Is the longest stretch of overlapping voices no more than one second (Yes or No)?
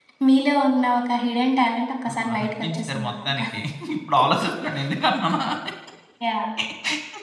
No